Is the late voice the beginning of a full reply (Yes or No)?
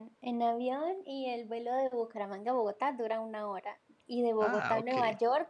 No